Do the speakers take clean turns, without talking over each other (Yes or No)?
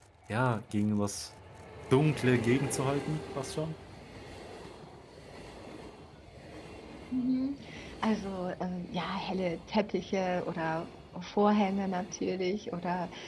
Yes